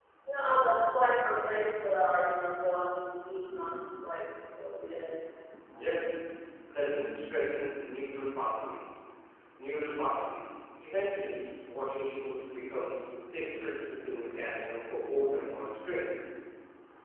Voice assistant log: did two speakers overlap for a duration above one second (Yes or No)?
No